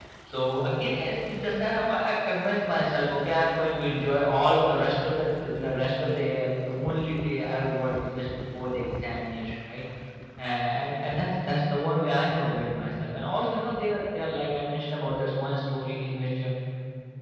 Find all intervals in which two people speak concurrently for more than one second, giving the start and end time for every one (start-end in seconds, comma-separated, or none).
none